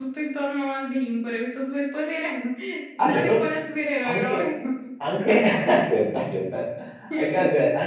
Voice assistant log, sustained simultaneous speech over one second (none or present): none